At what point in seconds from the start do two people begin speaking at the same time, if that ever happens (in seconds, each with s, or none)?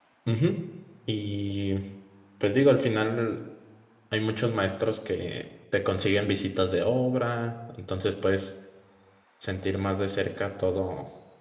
none